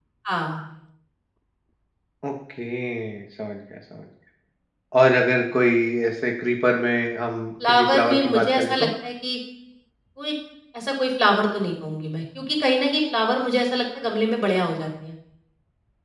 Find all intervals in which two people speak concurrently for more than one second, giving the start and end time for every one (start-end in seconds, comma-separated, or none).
7.7-8.9